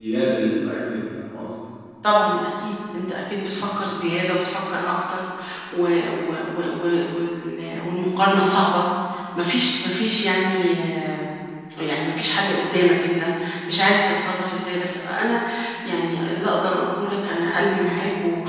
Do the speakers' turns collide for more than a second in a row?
No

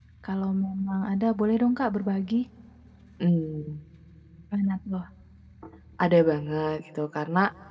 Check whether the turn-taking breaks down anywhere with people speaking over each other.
No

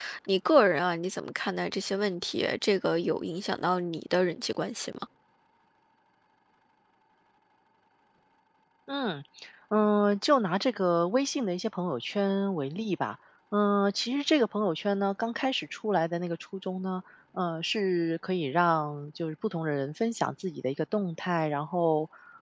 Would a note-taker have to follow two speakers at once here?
No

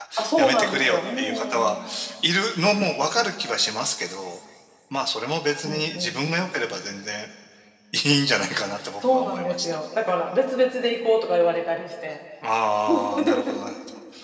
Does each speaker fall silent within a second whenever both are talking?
No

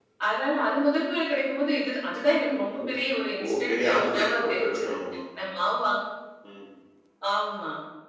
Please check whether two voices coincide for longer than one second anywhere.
Yes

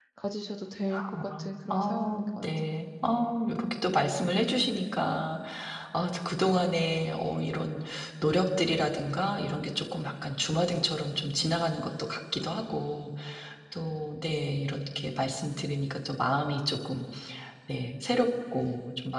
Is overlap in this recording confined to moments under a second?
No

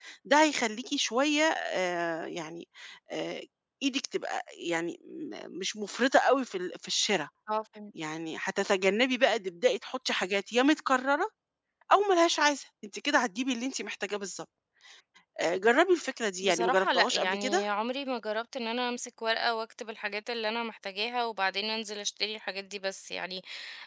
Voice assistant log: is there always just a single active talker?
No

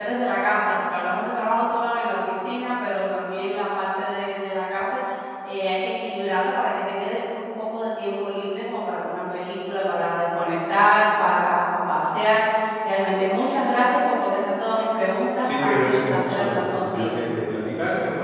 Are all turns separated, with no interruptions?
No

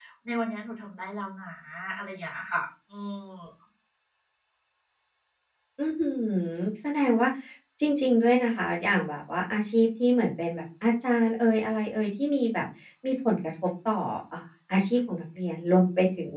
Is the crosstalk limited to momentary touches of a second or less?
Yes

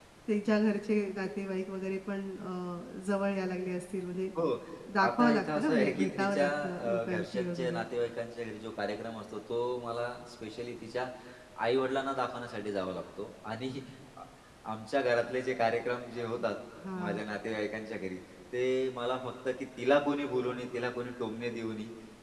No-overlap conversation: No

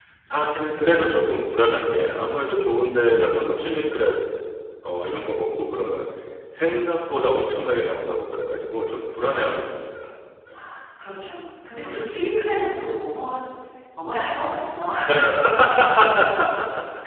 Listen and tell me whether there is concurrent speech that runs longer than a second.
No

